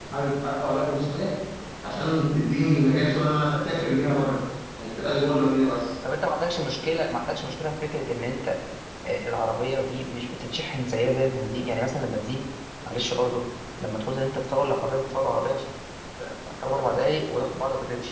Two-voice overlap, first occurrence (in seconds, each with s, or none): none